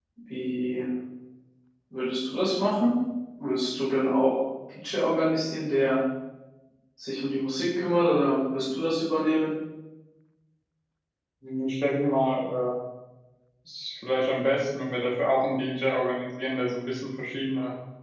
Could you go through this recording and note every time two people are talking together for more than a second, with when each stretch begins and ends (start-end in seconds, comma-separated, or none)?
none